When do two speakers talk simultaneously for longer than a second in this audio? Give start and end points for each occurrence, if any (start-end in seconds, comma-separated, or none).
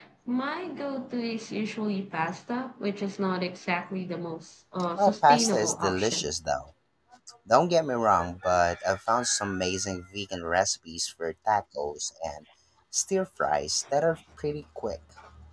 5.0-6.3